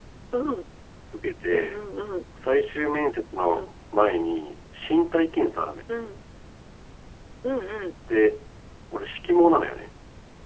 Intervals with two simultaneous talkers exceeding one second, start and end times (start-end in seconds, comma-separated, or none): none